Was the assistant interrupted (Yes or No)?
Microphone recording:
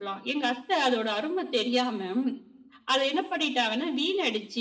No